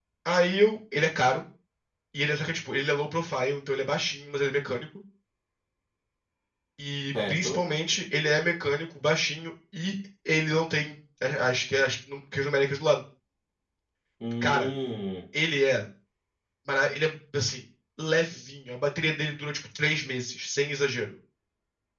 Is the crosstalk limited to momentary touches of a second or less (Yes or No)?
Yes